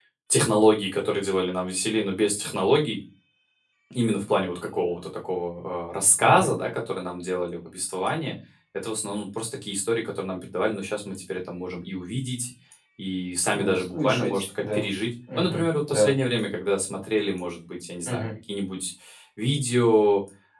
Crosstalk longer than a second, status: present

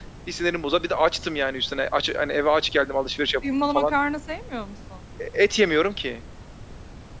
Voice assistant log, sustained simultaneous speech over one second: none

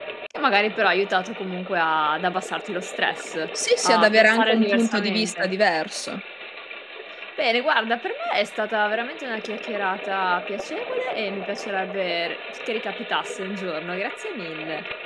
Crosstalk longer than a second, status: present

